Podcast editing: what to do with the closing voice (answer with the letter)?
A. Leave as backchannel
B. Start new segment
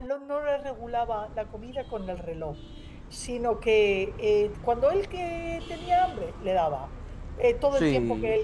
A